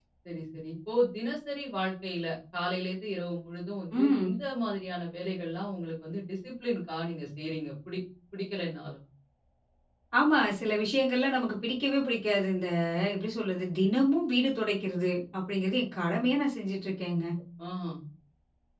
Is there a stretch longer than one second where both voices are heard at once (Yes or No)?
No